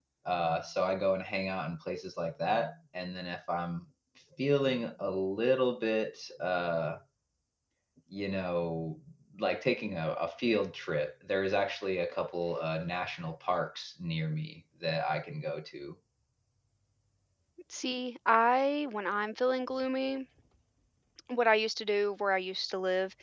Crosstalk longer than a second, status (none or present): none